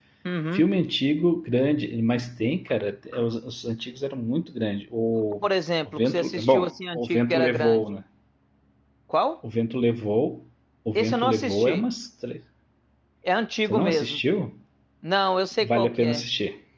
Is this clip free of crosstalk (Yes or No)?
No